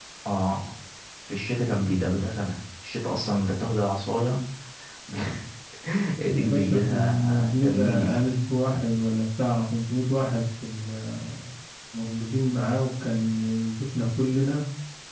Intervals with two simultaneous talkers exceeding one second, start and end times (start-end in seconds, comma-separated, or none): 6.3-8.1